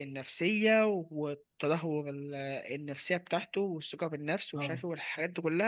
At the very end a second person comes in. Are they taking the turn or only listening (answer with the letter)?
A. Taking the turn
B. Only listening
B